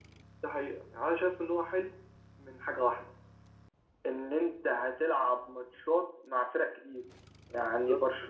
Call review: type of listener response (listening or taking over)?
listening